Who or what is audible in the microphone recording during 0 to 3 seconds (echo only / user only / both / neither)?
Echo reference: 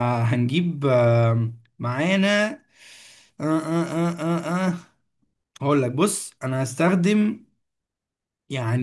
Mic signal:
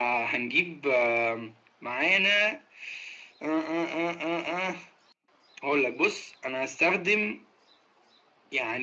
echo only